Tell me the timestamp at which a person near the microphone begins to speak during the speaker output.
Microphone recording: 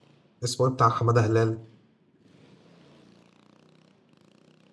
0.4 s

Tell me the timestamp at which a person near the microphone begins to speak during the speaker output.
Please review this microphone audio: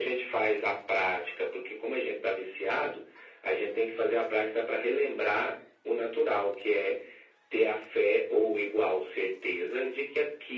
none

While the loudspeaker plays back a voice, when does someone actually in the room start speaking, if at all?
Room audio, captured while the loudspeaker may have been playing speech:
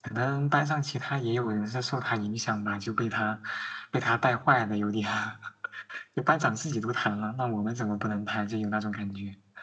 none

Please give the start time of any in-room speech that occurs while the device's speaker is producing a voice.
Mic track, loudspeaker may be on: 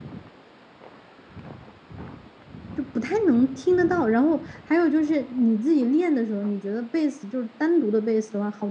2.7 s

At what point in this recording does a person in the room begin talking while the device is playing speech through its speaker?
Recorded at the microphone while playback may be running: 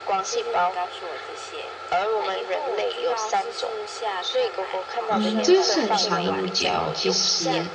5.0 s

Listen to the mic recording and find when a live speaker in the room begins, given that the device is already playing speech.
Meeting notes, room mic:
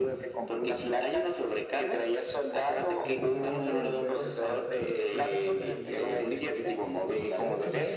3.0 s

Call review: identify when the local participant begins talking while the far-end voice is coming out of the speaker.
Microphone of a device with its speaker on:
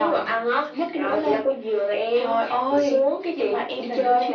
none

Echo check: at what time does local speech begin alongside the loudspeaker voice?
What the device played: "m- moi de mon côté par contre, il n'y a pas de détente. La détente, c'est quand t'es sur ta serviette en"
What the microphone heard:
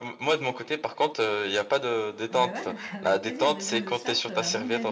2.3 s

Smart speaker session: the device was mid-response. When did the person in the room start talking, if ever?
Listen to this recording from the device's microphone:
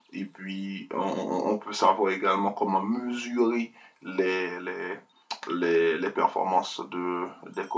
none

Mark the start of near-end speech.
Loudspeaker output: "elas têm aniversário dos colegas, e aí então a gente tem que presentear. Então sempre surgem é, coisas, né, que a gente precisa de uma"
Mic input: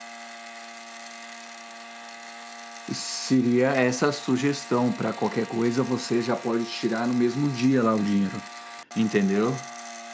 2.9 s

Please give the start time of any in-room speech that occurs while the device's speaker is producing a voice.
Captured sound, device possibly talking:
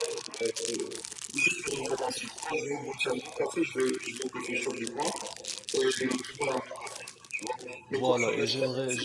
7.9 s

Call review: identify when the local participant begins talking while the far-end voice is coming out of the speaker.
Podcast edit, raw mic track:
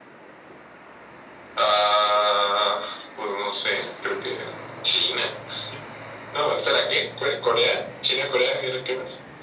none

